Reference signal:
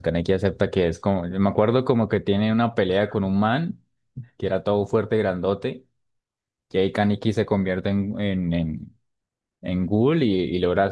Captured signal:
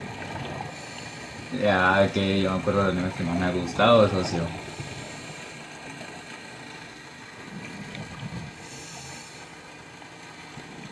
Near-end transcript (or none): Ya que yo me acuerdo de los animes que más me ha gustado, socio.